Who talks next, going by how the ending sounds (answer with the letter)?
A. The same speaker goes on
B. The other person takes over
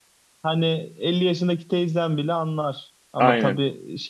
A